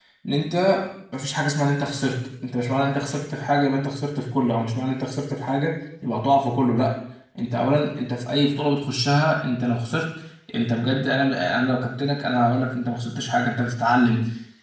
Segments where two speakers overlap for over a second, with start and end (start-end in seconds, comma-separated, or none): none